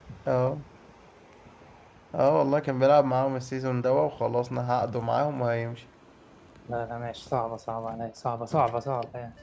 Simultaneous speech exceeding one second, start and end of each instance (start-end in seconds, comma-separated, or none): none